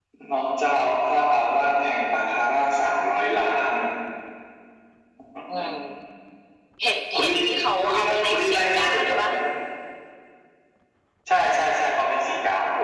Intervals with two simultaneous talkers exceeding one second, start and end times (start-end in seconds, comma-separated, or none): 7.8-9.2